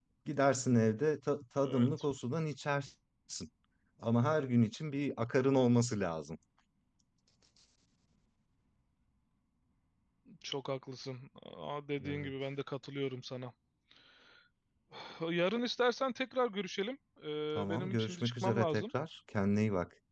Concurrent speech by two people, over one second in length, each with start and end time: 17.6-18.8

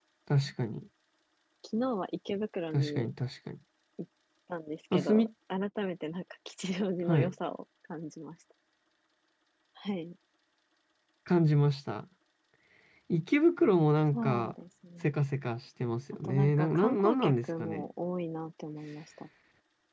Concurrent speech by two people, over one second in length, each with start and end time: 16.2-17.9

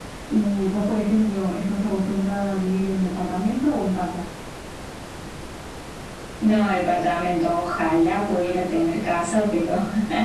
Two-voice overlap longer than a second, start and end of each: none

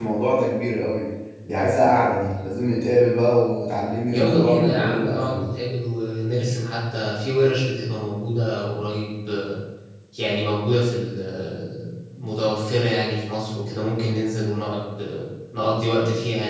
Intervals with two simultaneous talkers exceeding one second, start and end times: 4.1-5.4

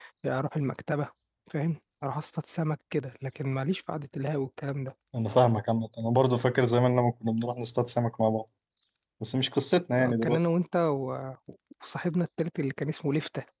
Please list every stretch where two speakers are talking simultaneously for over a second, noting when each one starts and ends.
none

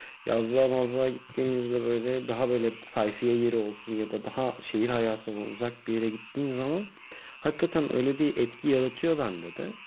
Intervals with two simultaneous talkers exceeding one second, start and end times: none

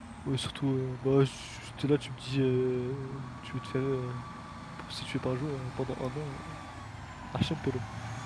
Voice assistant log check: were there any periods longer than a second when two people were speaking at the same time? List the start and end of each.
none

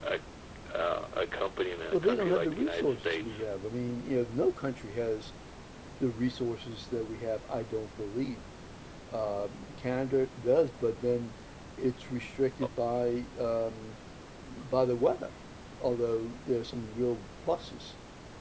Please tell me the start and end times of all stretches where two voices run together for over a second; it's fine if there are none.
1.9-3.4

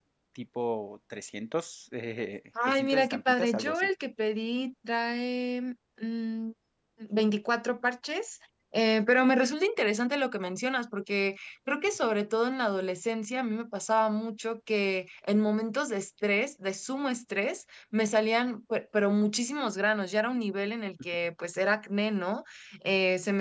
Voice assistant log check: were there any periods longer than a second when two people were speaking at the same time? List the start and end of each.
2.6-3.9

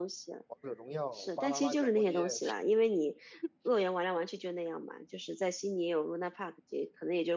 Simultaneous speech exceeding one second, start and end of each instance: 1.1-2.4

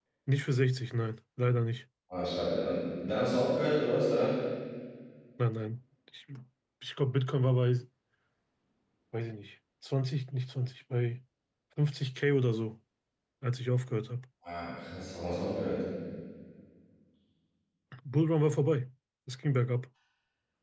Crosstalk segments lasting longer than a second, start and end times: none

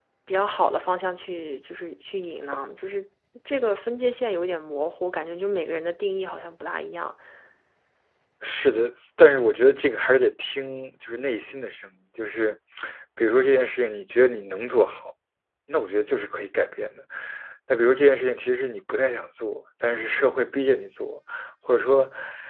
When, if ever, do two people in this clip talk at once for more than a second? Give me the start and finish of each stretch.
none

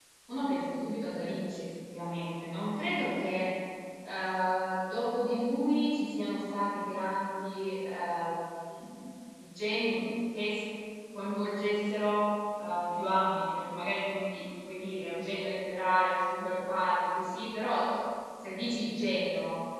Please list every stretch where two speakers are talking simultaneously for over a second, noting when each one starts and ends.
none

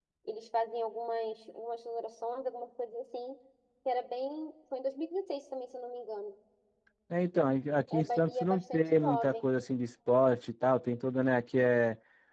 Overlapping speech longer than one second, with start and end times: 7.9-9.4

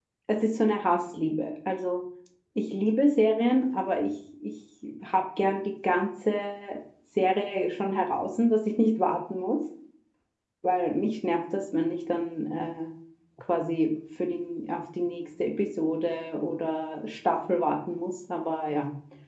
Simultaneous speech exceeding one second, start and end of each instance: none

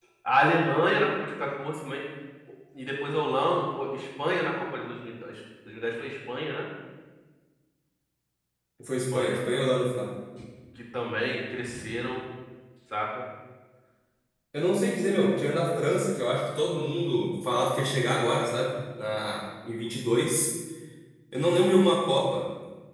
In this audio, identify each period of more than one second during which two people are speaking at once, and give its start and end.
none

